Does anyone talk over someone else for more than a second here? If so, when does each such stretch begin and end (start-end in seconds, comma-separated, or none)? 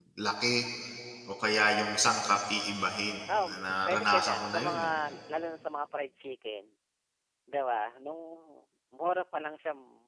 3.4-4.9